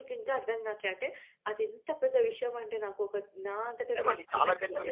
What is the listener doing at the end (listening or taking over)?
taking over